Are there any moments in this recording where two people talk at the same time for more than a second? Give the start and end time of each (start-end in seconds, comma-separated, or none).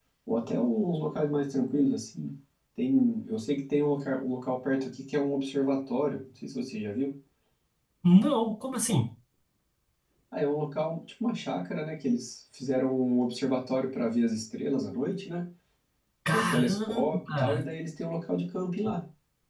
16.3-17.6